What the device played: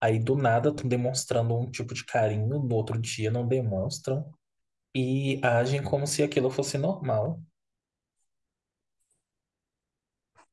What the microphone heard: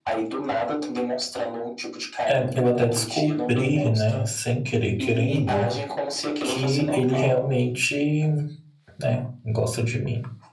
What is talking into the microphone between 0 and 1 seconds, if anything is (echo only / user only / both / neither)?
echo only